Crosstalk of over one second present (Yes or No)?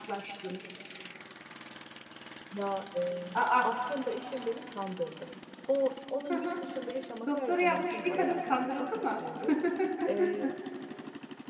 Yes